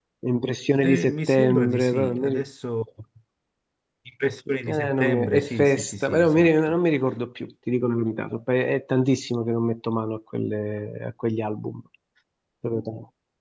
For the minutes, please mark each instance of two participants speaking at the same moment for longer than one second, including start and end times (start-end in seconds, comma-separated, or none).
0.8-2.4, 4.7-6.8